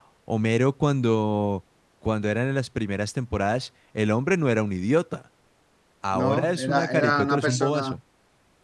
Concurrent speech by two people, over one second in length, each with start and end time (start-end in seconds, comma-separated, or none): 6.1-7.9